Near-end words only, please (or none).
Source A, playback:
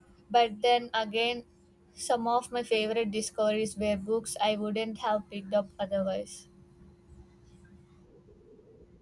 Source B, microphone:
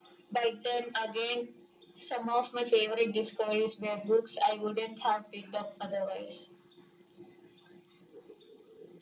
none